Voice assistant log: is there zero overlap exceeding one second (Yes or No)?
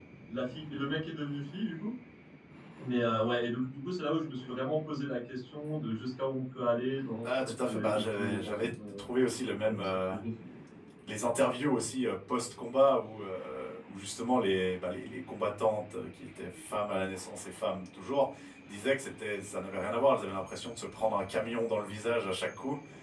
No